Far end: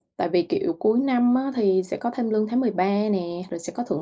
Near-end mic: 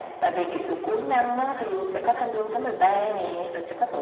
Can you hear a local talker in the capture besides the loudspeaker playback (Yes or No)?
No